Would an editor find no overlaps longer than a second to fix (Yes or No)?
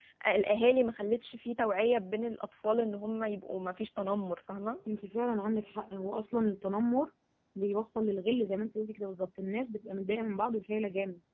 Yes